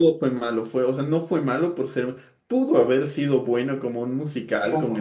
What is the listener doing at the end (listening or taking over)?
listening